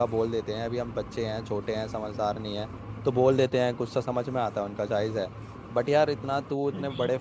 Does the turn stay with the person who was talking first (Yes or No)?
Yes